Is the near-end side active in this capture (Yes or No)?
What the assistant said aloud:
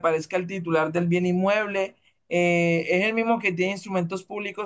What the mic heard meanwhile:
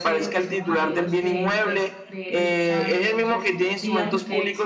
Yes